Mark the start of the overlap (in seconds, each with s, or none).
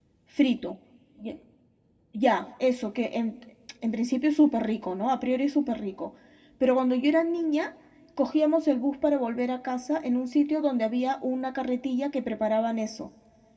none